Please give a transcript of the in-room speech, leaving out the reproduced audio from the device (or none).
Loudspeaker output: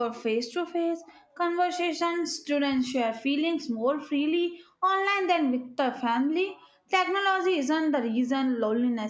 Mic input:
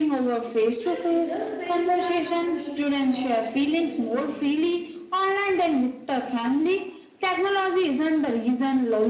Like real friends have emotions, flaws, and disagreements.